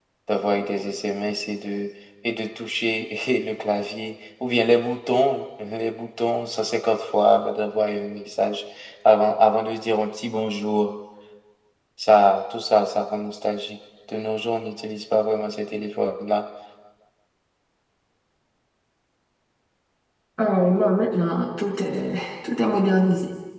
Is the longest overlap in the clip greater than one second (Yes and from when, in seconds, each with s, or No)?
No